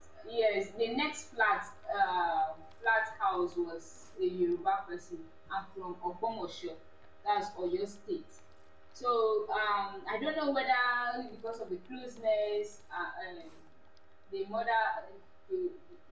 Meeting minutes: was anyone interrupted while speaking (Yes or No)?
No